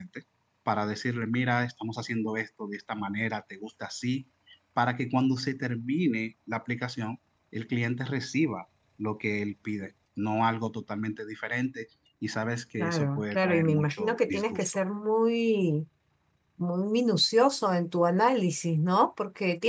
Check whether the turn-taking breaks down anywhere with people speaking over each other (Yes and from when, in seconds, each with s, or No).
Yes, from 12.8 s